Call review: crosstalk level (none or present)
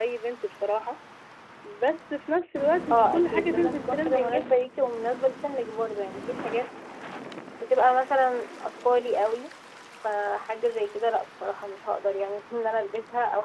present